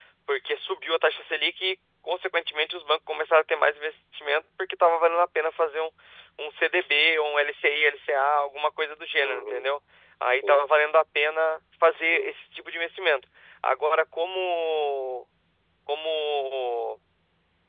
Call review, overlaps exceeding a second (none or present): none